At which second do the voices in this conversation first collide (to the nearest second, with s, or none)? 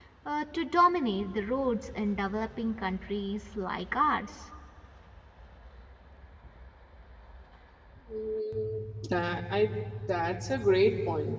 none